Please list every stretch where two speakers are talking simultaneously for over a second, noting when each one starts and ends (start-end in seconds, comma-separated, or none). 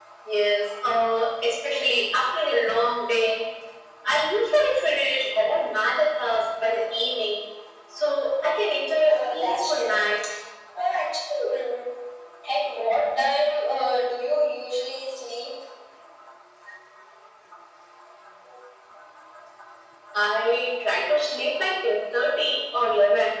8.8-10.1